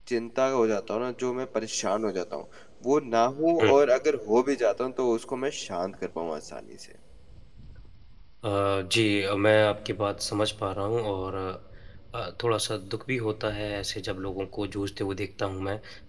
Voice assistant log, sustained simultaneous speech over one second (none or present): none